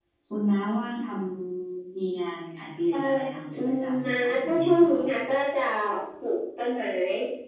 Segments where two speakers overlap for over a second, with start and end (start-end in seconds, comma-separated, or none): 3.6-5.3